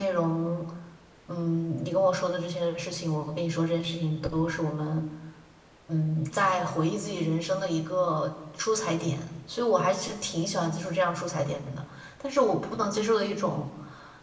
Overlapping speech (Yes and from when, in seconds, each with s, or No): No